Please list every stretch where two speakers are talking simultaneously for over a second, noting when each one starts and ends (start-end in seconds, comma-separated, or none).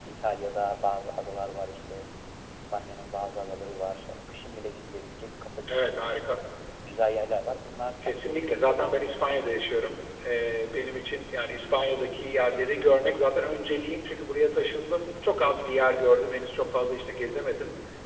8.0-9.4